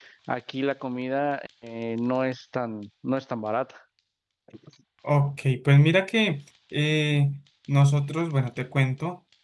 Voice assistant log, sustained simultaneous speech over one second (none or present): none